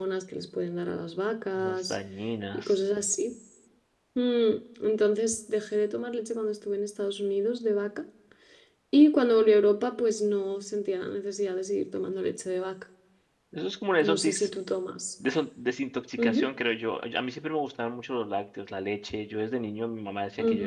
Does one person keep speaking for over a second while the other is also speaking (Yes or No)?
No